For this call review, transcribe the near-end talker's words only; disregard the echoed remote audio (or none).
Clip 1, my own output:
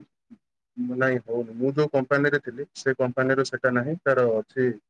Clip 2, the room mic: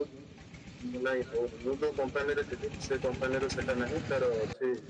none